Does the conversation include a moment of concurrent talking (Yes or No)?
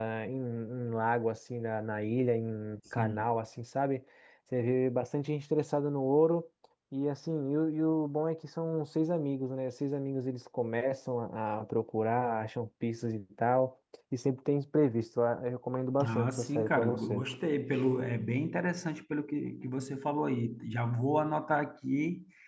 Yes